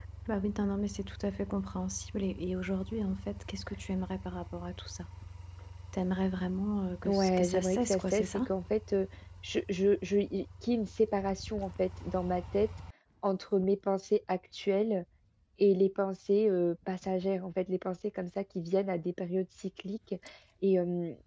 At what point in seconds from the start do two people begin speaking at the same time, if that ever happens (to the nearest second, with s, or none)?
7 s